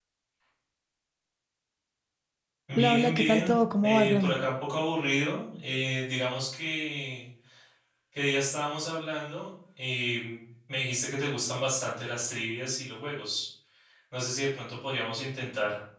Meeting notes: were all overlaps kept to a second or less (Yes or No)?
No